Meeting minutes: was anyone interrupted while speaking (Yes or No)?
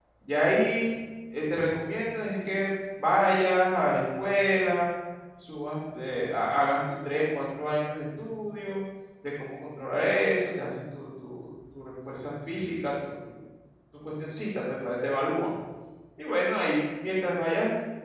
No